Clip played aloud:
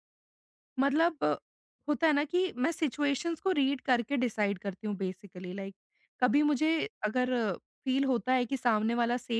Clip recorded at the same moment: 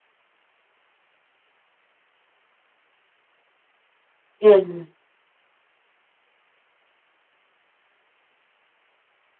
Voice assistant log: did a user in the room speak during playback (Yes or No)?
Yes